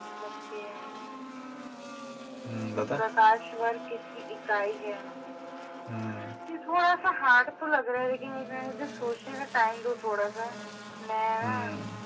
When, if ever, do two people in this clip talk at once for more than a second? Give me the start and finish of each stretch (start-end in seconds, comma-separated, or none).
none